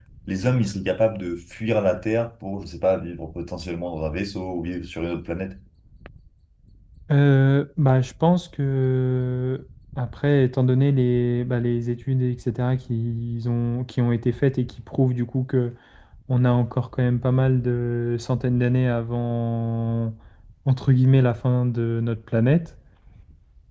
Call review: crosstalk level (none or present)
none